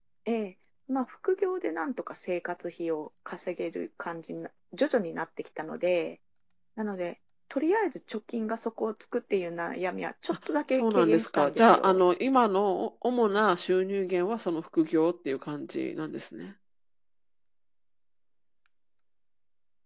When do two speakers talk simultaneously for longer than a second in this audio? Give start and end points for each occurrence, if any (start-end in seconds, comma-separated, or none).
10.7-12.0